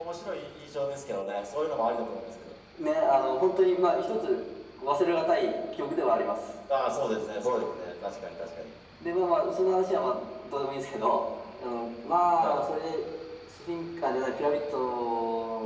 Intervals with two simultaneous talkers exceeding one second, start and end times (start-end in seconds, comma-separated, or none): none